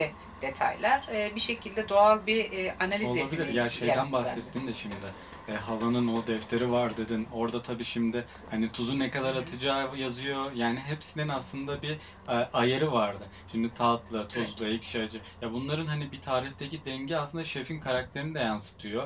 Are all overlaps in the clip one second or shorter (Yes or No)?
No